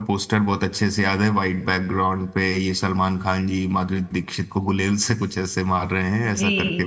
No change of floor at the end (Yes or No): No